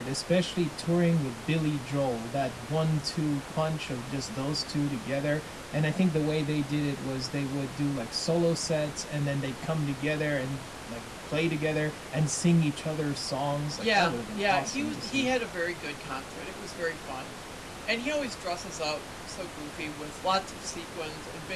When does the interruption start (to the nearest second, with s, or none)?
14 s